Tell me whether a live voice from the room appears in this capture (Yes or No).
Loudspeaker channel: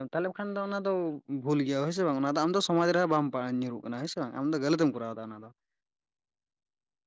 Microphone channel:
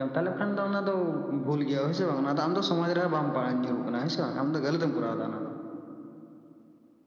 No